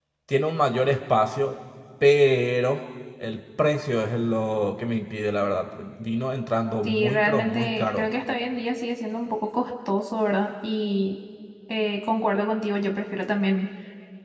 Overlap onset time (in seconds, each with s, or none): 6.8 s